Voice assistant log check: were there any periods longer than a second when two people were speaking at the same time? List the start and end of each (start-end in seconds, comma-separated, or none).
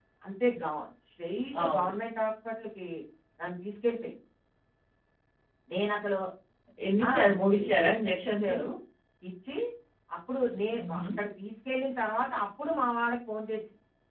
7.1-8.5